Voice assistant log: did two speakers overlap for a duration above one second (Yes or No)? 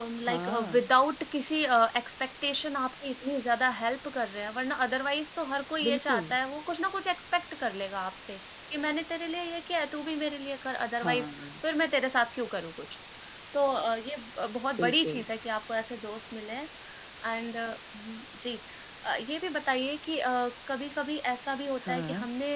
No